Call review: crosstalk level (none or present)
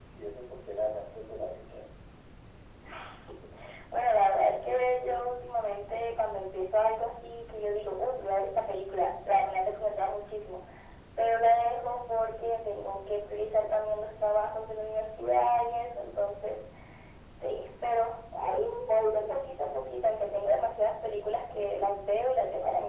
none